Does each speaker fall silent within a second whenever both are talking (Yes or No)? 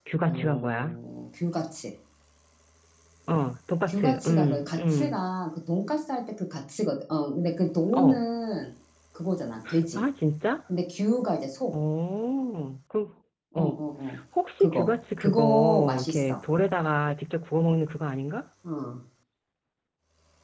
No